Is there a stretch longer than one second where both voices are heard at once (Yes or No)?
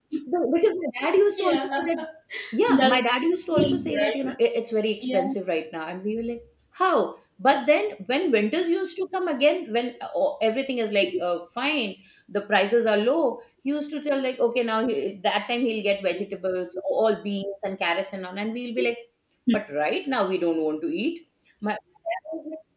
Yes